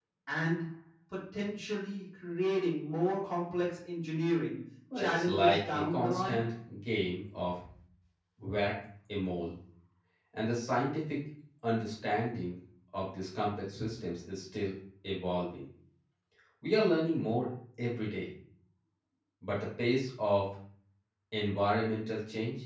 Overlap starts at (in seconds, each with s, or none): 4.9 s